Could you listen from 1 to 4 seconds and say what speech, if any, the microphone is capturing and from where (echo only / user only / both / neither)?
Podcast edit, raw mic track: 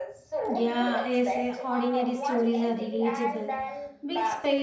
both